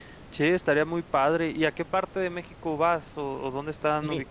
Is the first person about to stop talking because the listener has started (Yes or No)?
Yes